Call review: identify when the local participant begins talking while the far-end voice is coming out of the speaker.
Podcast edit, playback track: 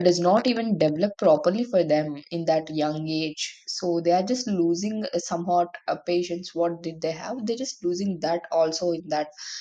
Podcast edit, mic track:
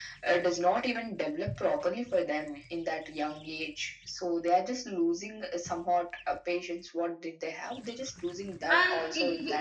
9 s

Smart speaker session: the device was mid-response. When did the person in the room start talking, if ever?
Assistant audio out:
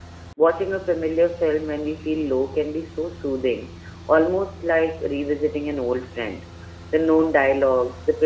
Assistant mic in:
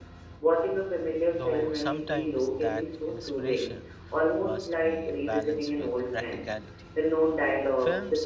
1 s

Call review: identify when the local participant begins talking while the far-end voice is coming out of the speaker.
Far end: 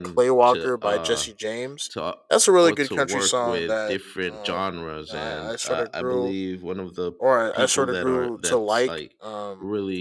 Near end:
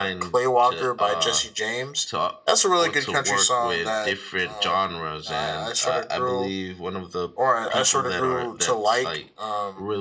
none

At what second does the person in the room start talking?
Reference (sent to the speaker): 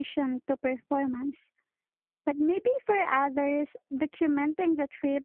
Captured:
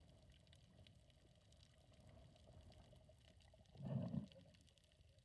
none

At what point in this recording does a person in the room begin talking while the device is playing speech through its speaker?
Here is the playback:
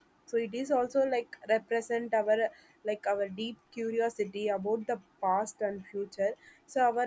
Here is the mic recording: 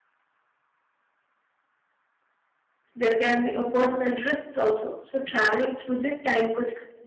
3 s

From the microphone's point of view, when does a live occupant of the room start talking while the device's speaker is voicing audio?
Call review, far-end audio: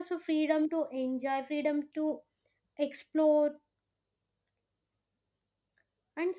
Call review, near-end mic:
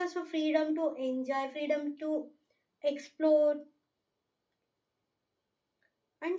none

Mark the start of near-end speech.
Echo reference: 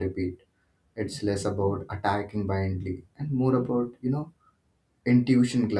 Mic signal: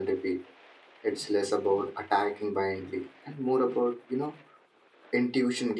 none

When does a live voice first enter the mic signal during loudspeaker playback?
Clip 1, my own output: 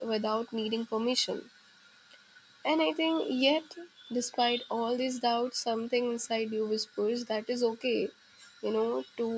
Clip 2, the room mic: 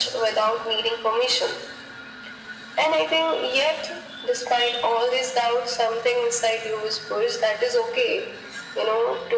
none

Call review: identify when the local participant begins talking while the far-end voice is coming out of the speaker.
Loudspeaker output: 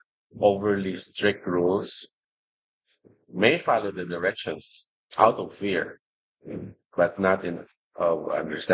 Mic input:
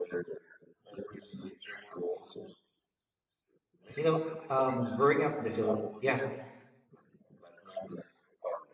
4 s

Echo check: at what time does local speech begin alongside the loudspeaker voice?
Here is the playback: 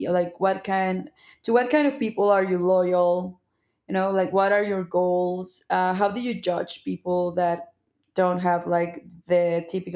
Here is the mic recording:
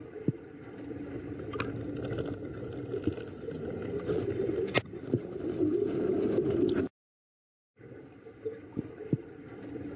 none

